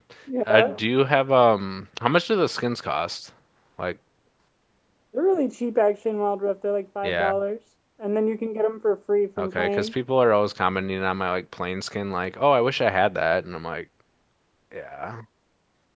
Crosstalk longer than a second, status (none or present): none